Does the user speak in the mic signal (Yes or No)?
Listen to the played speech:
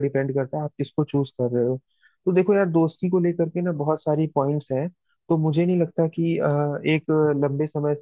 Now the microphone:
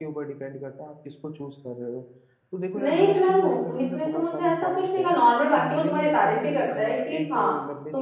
Yes